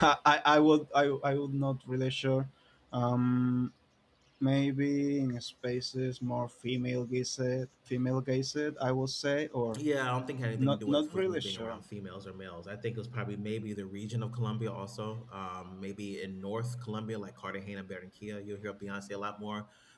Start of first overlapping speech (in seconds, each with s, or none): 10.6 s